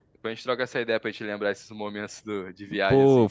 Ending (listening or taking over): taking over